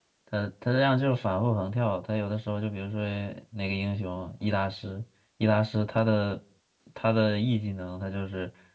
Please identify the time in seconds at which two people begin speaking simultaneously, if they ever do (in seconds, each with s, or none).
none